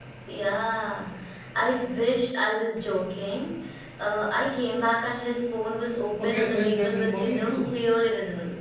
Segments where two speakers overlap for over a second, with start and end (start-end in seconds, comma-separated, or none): 6.2-7.7